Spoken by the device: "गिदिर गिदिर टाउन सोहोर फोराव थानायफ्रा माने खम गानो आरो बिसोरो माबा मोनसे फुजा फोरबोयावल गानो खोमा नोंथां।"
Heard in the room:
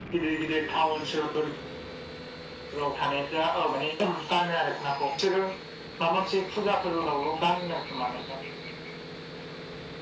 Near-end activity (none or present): none